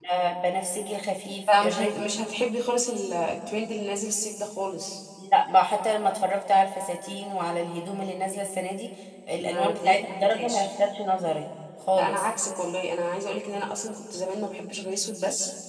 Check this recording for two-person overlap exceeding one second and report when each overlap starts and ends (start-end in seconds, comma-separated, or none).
9.4-10.7